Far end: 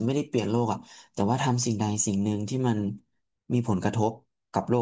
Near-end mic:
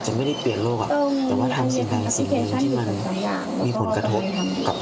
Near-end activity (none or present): present